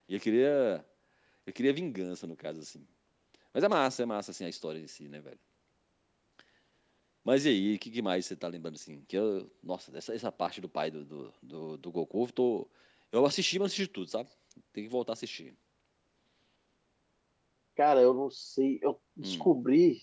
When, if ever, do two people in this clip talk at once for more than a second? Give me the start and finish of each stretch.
none

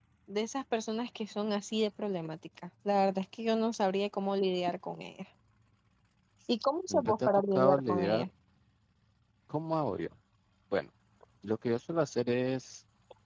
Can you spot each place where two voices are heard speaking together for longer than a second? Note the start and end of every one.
6.9-8.3

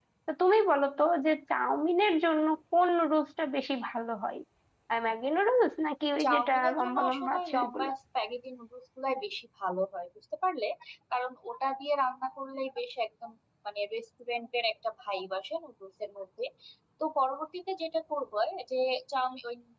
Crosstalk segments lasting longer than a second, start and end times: 6.2-7.9

